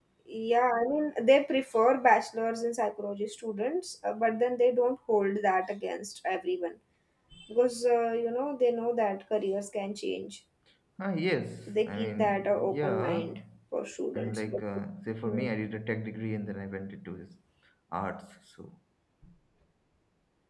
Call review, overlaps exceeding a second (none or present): present